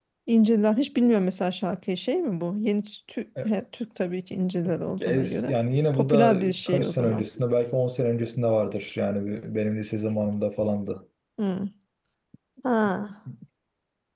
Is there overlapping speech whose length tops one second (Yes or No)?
Yes